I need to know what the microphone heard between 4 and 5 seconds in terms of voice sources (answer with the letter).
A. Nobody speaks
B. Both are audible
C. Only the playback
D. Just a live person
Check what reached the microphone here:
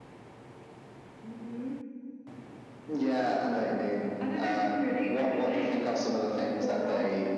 C